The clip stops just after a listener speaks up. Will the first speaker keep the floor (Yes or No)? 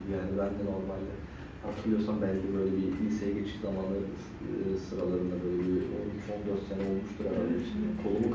Yes